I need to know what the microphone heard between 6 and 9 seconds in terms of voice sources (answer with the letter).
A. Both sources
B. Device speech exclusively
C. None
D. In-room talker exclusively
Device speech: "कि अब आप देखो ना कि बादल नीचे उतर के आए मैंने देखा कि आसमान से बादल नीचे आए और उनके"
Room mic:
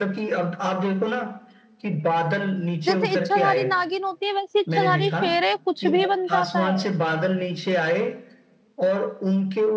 A